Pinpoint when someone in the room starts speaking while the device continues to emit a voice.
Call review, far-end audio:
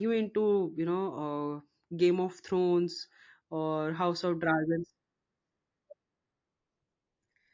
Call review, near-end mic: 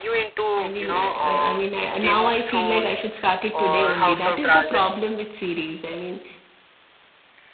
1 s

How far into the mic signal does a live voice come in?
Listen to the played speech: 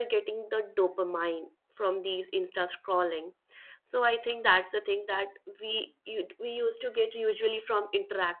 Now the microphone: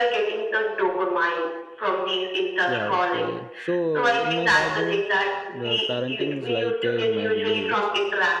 3 s

